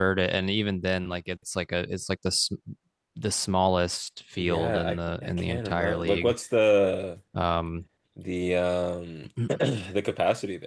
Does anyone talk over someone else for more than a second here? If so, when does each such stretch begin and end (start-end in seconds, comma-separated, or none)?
4.4-6.3